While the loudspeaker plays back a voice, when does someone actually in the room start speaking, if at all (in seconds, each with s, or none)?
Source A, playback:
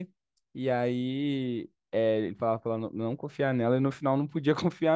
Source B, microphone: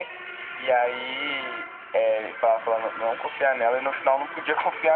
none